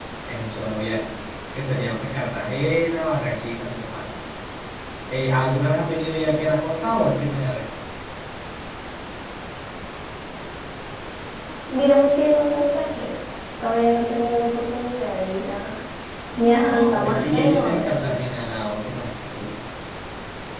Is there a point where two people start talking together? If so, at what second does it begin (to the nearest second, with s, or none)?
16 s